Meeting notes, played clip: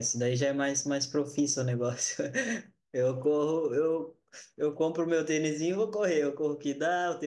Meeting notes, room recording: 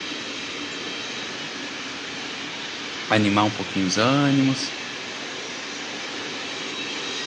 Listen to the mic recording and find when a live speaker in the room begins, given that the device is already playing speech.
3 s

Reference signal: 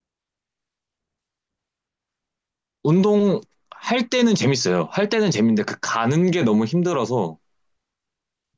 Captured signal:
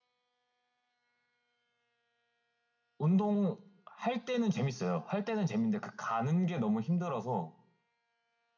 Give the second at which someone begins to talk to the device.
none

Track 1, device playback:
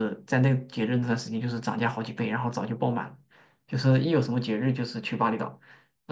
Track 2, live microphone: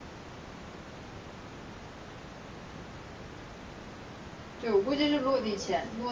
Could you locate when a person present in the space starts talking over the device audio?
5 s

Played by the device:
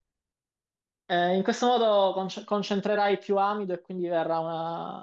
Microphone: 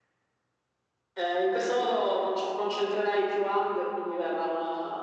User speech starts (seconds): none

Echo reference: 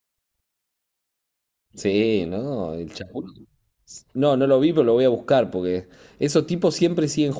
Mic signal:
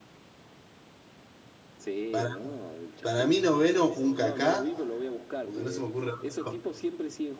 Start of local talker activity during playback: 2 s

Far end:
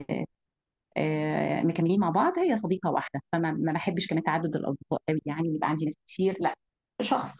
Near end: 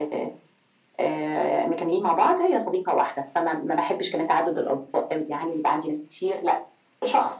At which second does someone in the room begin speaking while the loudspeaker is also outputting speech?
none

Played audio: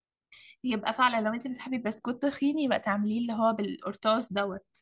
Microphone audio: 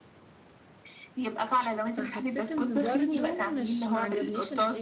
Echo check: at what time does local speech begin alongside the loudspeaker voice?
2 s

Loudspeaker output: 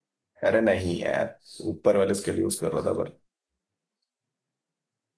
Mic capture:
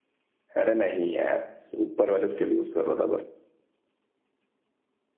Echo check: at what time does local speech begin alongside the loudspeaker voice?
none

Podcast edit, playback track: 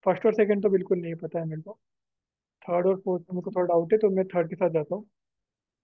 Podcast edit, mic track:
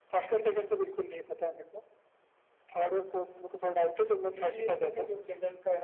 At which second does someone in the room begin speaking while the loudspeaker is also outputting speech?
4 s

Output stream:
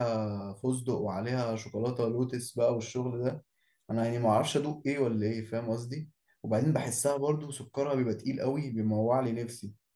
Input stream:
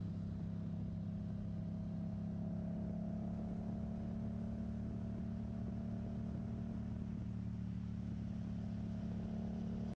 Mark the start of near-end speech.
none

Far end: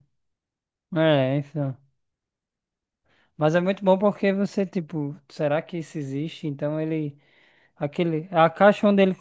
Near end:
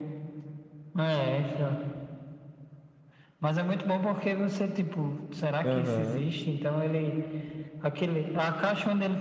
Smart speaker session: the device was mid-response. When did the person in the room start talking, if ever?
6 s

